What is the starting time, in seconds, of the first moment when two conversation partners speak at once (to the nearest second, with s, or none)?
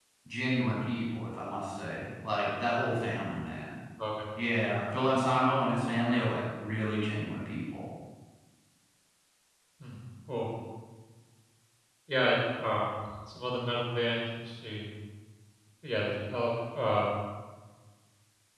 none